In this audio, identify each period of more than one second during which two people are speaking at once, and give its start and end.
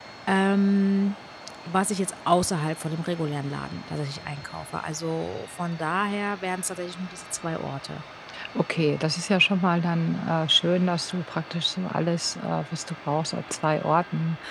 none

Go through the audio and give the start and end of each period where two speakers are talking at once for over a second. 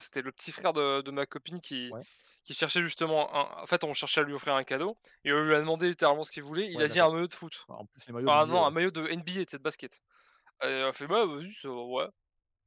none

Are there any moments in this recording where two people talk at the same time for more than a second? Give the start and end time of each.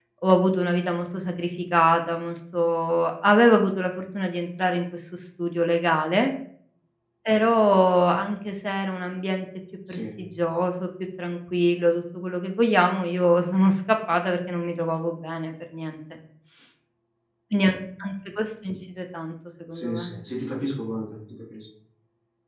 none

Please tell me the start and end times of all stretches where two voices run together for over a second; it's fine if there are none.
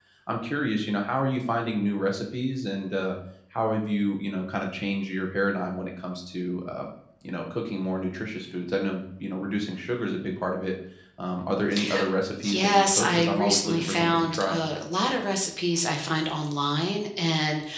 12.5-14.6

